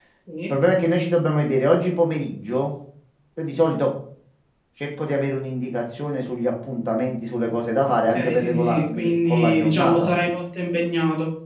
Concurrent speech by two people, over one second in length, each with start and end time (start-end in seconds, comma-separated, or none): 7.8-10.1